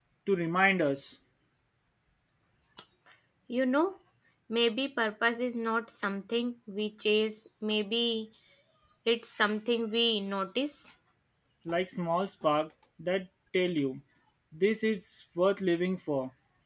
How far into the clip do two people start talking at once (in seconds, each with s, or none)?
none